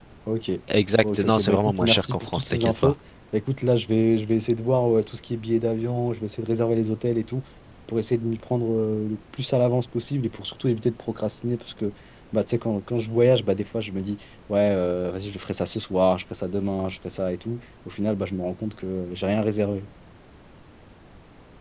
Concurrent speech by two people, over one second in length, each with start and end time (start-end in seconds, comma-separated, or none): 1.0-2.9